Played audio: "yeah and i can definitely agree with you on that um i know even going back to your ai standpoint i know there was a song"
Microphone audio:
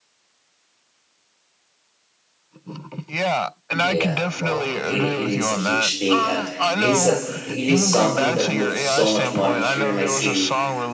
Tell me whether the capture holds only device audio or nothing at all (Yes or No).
No